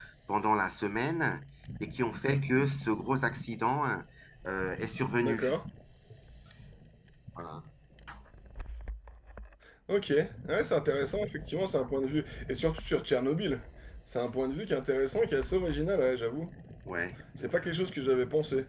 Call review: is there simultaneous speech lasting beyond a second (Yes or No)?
No